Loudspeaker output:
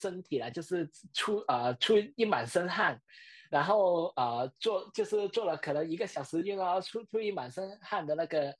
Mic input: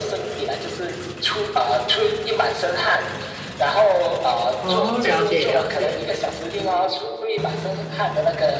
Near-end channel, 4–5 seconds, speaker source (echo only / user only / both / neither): both